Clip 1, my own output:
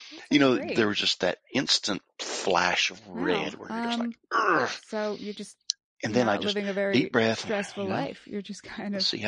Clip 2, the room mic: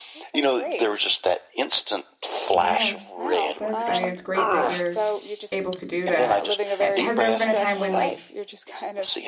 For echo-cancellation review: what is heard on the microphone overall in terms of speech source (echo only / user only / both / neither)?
both